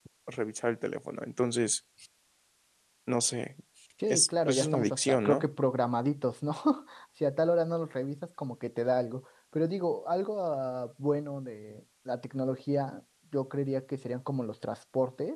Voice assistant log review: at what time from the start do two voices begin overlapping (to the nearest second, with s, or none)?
4 s